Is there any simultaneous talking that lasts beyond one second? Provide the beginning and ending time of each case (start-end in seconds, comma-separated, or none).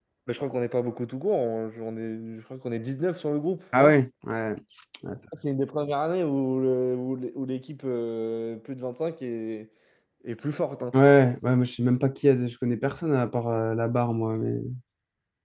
none